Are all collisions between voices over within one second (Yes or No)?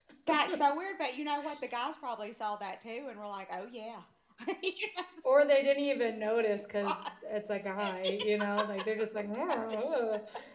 Yes